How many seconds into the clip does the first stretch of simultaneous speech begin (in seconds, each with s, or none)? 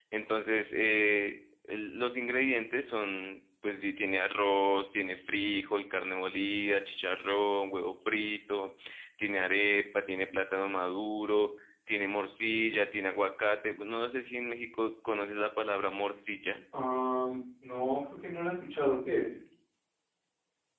none